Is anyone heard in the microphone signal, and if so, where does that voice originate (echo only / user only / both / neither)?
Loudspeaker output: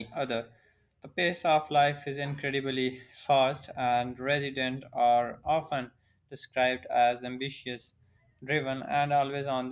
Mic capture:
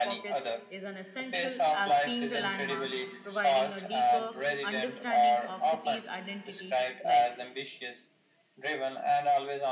both